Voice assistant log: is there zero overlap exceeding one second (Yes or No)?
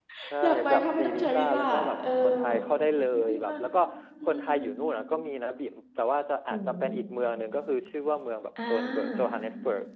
No